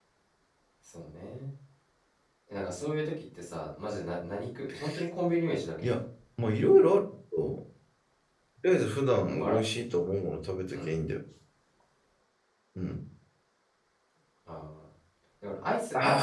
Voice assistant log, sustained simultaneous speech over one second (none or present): none